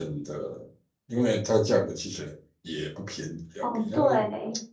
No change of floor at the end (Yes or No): No